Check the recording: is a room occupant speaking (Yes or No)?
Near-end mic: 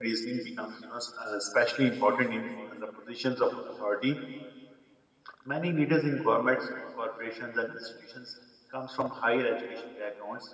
Yes